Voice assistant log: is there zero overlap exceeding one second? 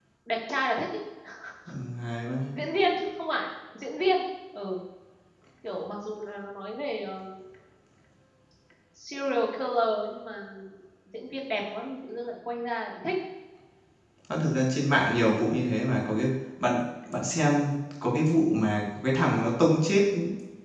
Yes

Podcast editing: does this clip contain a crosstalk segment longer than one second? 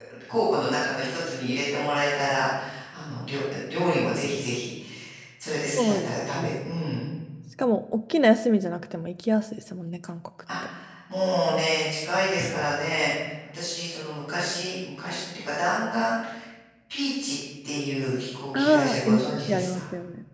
Yes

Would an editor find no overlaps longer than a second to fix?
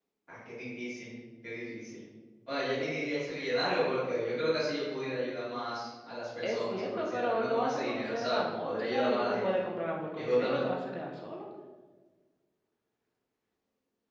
No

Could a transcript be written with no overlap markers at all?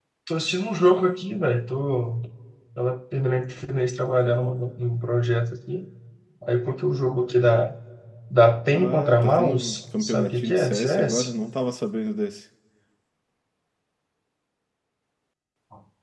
No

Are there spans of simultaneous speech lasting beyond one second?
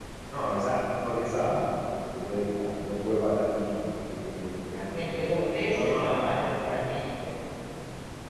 Yes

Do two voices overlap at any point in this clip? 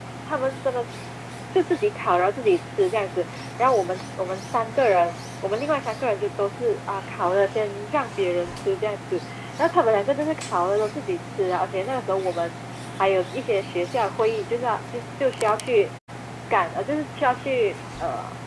No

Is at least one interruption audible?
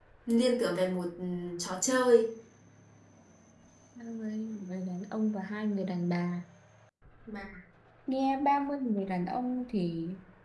No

